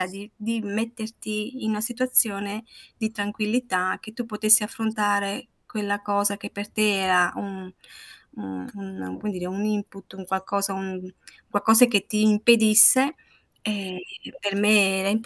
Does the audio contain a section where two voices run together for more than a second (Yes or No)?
No